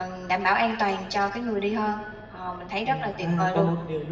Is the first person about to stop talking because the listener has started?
Yes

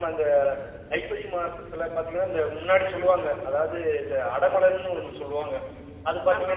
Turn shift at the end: No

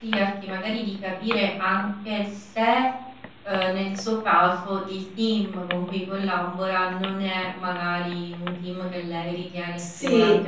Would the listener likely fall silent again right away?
Yes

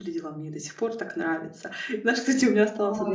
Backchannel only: Yes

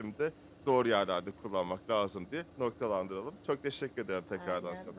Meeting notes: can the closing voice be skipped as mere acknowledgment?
No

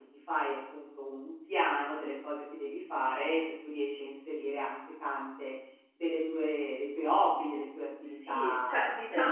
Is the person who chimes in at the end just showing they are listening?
No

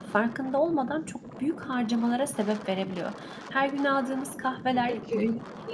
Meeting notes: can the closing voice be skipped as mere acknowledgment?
Yes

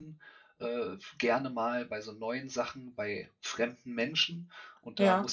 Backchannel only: Yes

